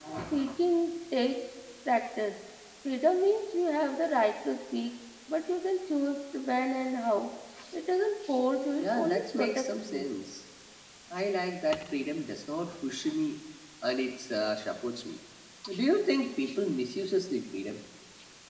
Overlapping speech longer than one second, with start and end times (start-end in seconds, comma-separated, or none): 8.8-10.1